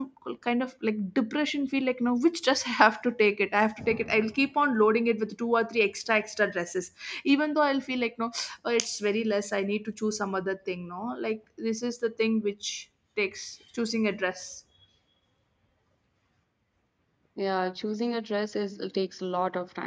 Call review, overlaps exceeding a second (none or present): none